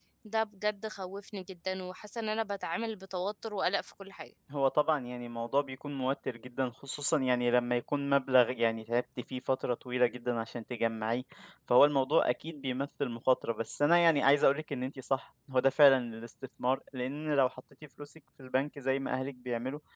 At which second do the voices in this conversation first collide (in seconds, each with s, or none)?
none